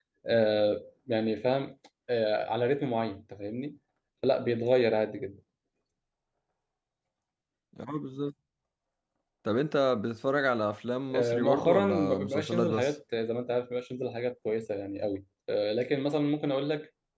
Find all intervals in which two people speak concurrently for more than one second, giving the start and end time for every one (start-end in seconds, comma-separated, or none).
11.2-13.0